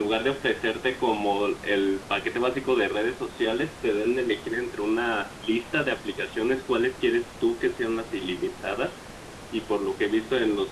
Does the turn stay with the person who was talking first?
Yes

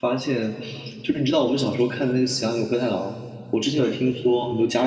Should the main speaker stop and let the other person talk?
No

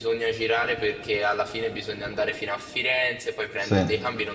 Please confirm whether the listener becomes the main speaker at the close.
No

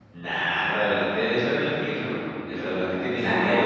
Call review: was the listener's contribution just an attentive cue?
No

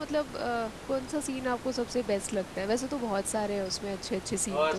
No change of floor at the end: No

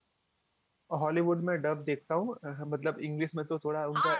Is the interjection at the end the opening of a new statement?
Yes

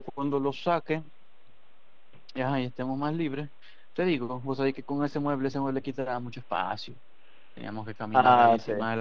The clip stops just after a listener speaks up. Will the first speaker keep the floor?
Yes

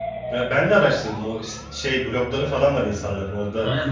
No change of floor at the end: No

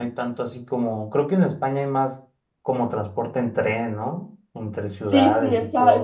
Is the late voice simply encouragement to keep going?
No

